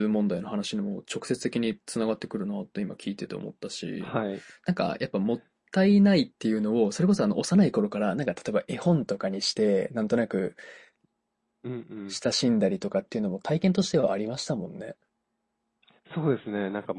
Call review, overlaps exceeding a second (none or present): none